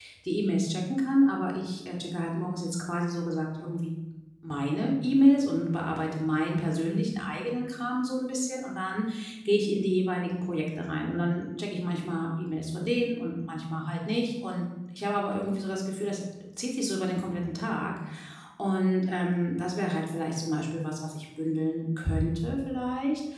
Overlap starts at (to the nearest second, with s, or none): none